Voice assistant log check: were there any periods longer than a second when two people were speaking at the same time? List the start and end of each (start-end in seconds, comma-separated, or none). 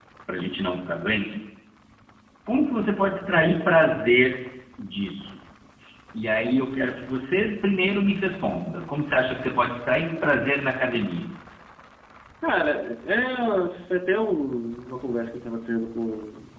none